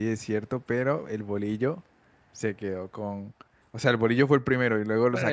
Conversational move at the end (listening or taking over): listening